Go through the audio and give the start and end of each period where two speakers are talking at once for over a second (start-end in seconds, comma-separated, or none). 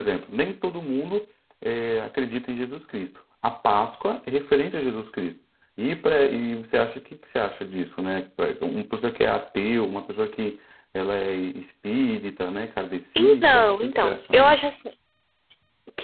13.2-14.6